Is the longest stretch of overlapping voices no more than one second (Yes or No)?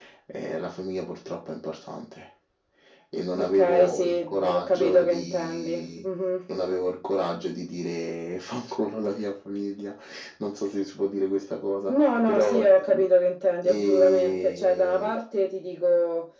No